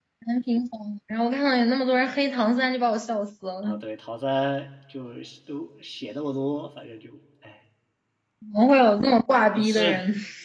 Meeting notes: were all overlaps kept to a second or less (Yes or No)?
Yes